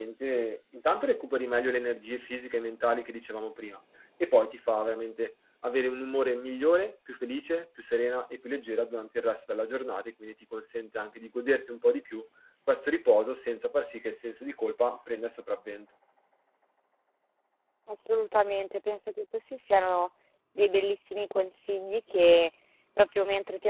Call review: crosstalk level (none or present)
none